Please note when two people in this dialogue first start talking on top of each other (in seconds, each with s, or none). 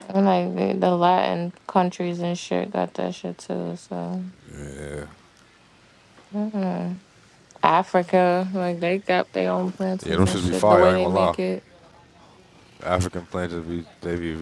10.0 s